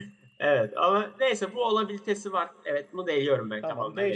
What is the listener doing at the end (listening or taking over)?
taking over